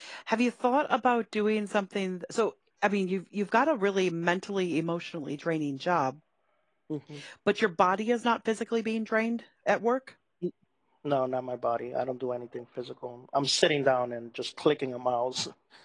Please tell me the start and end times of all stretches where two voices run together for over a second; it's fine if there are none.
none

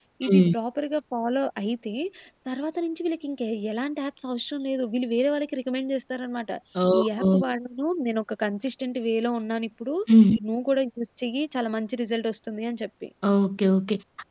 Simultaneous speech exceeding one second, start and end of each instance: none

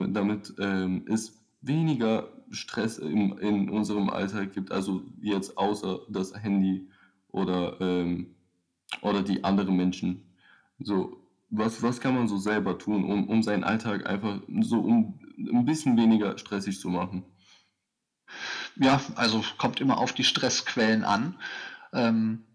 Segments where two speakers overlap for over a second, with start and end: none

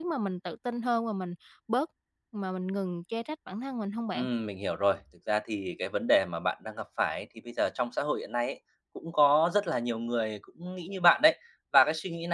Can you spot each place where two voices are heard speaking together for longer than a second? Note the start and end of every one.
none

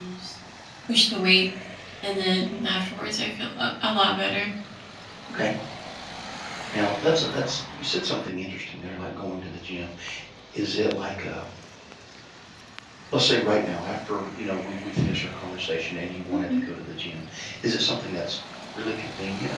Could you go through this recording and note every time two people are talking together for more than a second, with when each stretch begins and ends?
none

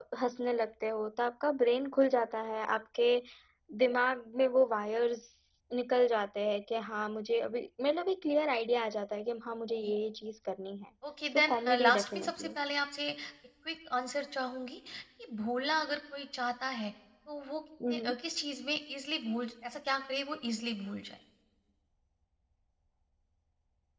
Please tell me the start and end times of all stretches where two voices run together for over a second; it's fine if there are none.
11.3-12.5

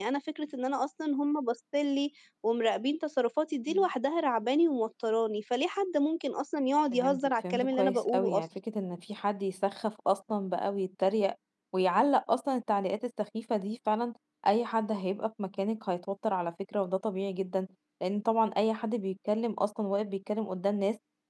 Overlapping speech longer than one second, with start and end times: 6.9-8.3

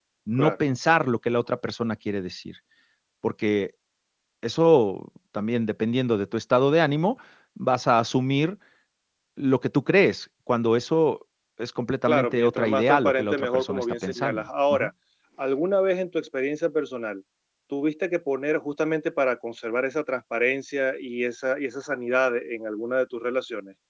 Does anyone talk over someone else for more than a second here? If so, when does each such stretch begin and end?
12.1-14.9

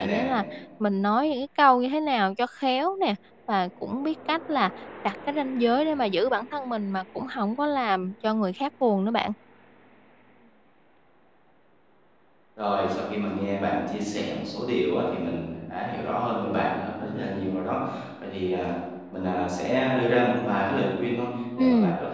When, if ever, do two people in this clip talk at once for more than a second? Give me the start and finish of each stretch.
none

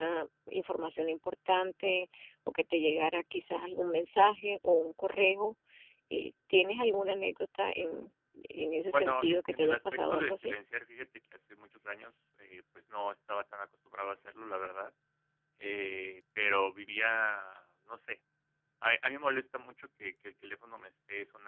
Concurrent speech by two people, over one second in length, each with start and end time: 8.9-10.5

